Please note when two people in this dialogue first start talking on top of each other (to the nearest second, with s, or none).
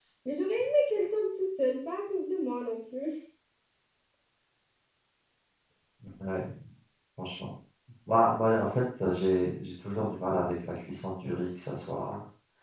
none